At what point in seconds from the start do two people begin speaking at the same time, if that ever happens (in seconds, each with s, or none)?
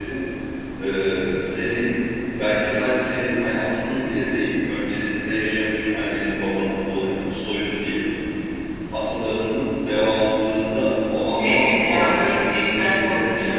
11.2 s